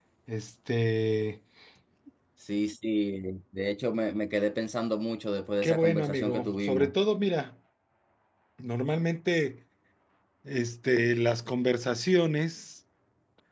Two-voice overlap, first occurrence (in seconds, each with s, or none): 5.6 s